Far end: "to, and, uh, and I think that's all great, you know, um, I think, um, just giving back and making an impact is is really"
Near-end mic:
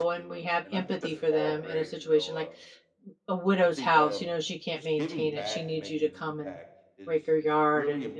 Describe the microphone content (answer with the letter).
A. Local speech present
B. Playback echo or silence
A